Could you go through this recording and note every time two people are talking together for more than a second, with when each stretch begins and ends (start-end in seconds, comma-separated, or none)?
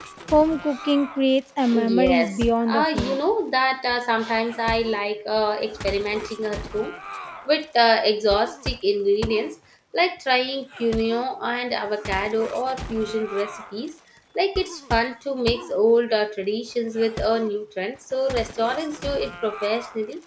1.8-3.2